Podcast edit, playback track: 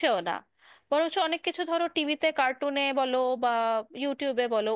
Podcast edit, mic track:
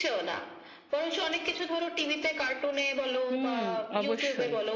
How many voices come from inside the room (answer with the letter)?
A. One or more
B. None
A